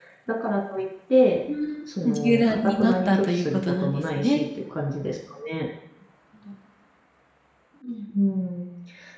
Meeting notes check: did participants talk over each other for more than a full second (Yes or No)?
Yes